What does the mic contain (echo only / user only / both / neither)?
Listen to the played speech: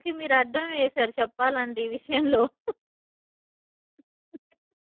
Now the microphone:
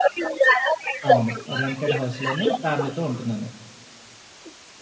both